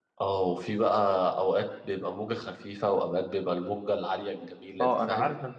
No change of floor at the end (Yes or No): No